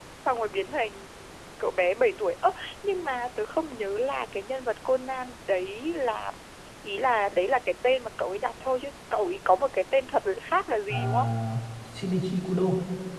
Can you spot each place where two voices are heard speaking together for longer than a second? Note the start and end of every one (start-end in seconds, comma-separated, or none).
none